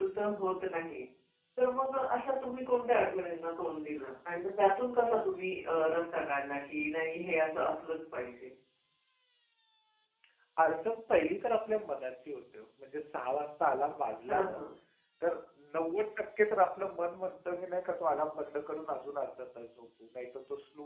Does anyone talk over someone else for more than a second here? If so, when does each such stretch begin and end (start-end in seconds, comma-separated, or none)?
none